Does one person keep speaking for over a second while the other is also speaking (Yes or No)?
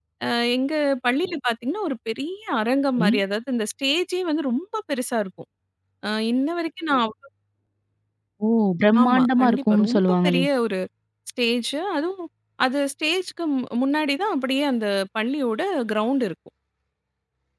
Yes